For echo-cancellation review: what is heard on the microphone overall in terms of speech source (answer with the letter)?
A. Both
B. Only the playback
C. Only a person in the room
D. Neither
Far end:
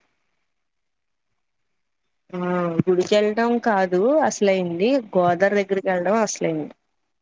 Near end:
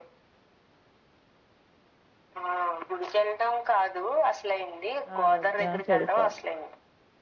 A